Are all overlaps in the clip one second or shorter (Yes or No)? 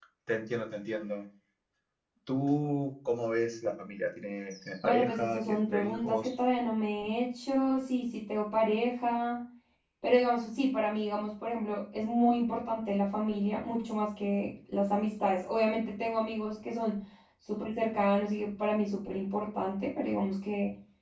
No